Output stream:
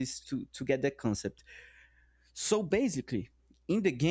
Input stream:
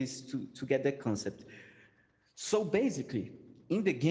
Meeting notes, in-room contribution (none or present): none